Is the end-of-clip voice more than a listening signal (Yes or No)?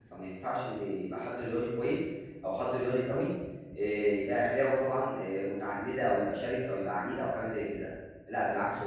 No